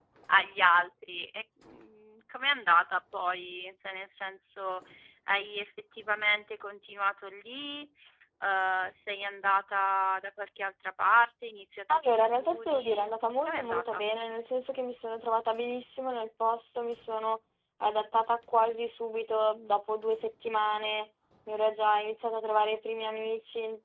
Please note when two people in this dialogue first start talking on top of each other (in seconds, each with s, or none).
11.9 s